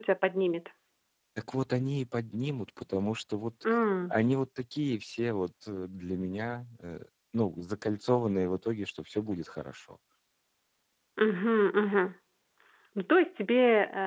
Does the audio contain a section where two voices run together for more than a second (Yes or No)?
No